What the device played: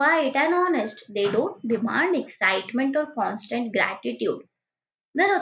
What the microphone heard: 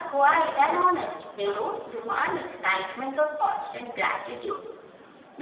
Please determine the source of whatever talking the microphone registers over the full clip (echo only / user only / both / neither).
echo only